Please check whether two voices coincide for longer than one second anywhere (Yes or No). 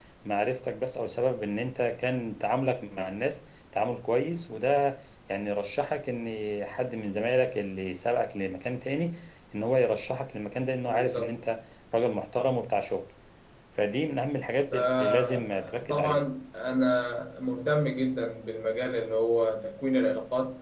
Yes